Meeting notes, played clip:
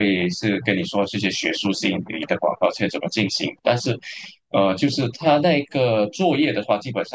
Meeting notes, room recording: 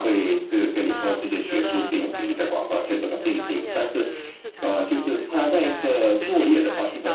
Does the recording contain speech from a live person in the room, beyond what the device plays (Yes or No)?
Yes